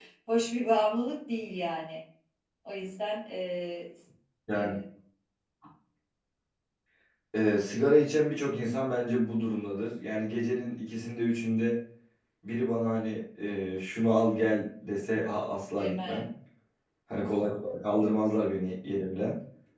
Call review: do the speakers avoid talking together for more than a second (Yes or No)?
Yes